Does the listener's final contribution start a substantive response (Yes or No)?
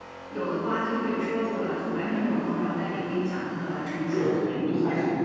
Yes